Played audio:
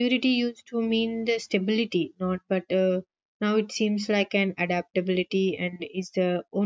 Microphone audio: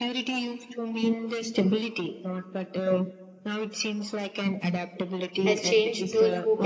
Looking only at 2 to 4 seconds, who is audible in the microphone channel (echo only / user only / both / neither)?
echo only